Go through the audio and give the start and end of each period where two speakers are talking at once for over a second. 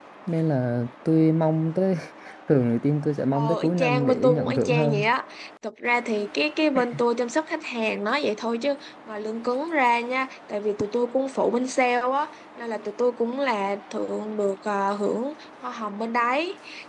3.3-5.0

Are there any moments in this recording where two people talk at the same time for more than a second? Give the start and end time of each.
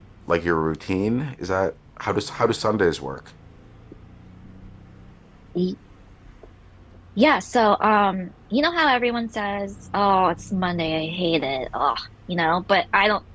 none

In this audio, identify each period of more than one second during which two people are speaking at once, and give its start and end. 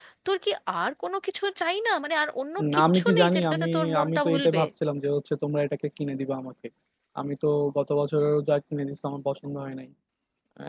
2.7-4.6

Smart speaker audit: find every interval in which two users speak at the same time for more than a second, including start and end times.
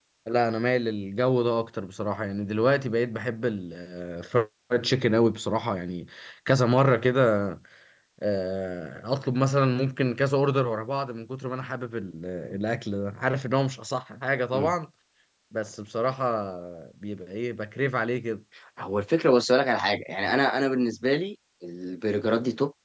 none

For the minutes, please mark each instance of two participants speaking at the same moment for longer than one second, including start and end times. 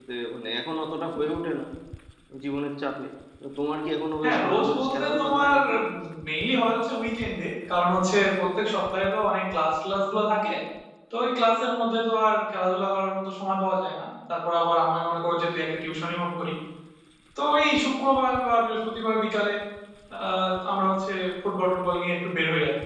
4.2-5.6

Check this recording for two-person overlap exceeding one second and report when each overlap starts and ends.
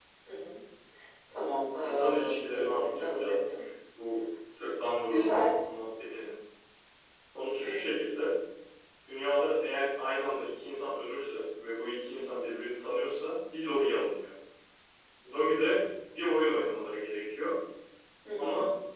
1.8-3.6

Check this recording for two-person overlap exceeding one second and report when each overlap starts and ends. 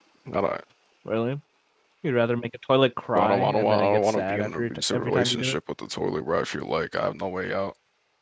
3.1-5.6

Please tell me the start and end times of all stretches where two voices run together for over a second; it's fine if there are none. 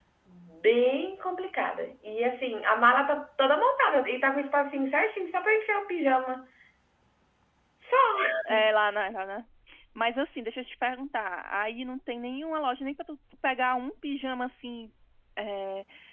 none

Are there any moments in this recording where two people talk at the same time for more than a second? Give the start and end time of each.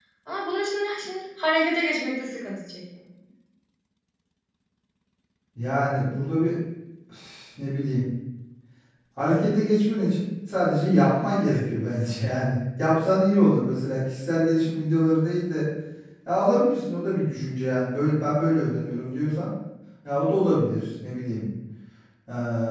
none

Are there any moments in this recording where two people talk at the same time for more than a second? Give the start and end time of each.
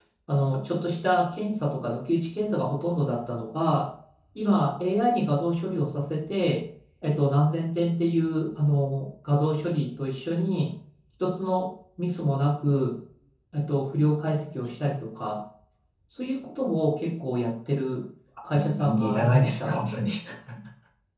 18.5-19.8

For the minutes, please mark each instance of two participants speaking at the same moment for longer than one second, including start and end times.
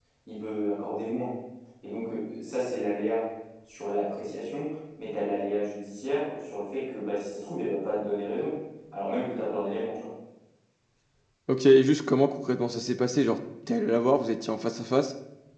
none

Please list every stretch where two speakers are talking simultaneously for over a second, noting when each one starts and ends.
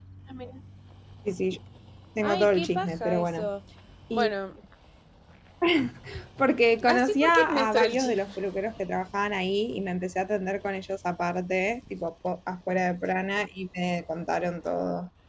2.2-3.5, 6.9-8.3

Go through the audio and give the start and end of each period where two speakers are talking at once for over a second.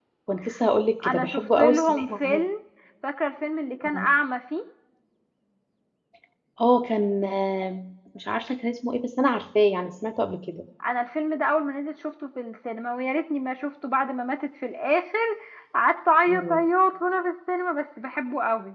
1.0-2.4

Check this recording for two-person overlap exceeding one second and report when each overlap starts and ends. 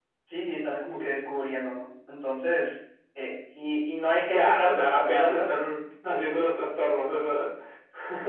4.2-5.7

